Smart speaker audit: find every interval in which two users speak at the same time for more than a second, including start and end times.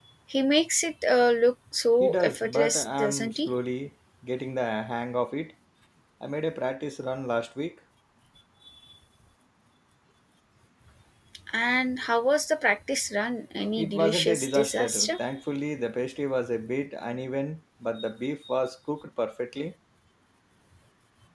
2.0-3.5, 13.8-15.2

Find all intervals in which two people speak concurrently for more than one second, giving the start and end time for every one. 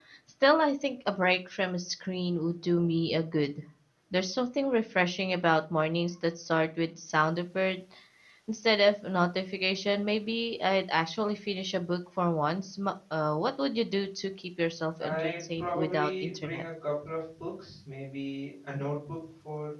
15.0-16.6

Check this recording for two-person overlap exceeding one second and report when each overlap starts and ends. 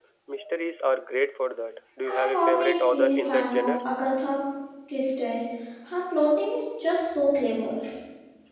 2.1-3.8

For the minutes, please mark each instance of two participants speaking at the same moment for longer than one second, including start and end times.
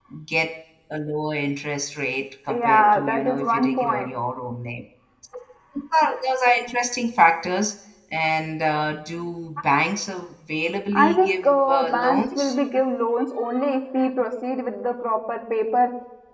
2.5-4.1, 10.9-12.5

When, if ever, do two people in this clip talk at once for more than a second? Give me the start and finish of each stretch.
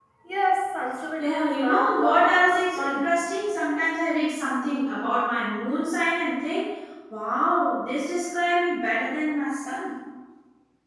1.2-3.1

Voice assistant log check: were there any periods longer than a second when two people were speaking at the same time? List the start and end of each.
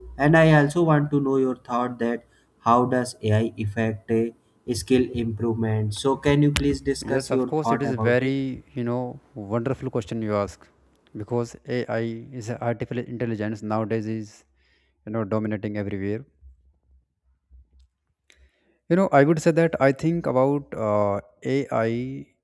7.0-8.3

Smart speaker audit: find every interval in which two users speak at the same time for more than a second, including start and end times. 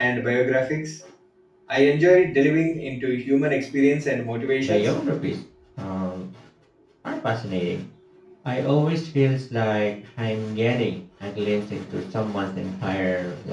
none

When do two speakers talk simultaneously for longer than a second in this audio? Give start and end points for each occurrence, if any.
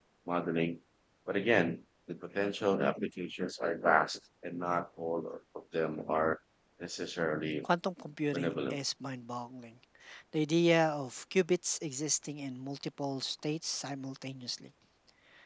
none

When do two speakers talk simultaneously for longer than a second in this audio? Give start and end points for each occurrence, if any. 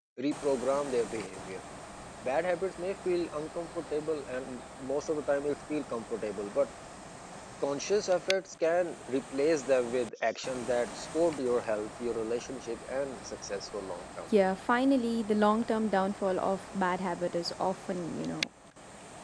none

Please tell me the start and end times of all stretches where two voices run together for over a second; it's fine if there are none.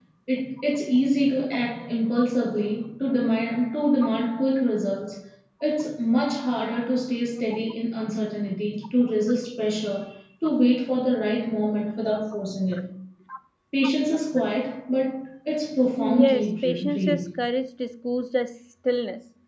16.0-17.3

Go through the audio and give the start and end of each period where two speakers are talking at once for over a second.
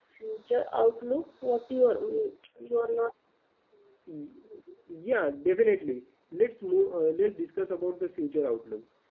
none

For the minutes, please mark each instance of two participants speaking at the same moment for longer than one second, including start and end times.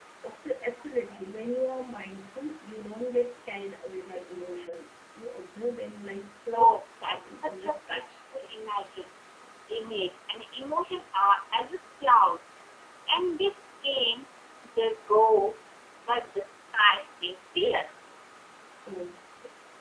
6.5-8.0

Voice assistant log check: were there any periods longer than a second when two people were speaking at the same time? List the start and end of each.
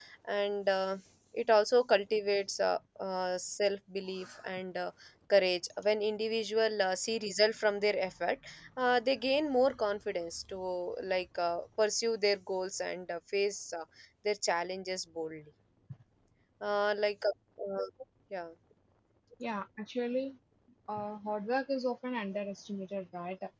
none

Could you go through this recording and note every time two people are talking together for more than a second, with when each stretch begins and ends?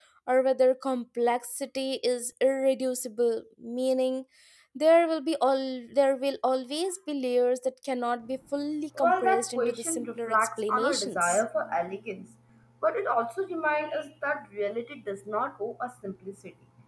9.0-11.4

